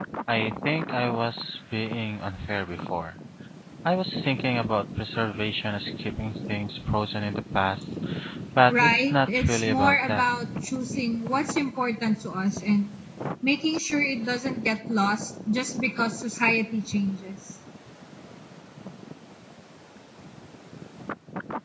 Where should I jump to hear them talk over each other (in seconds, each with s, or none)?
8.7 s